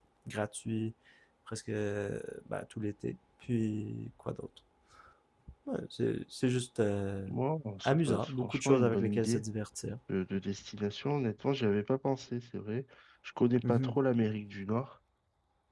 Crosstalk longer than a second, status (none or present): present